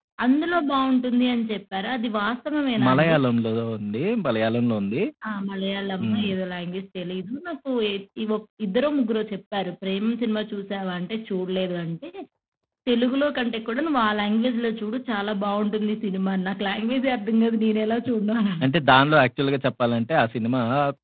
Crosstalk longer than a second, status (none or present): none